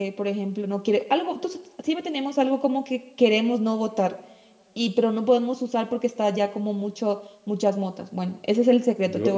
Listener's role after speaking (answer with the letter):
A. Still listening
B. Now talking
B